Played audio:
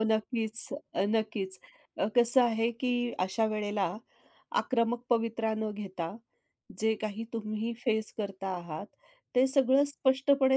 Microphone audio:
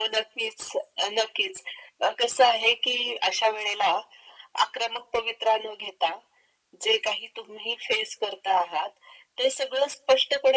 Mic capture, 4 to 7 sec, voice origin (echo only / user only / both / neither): echo only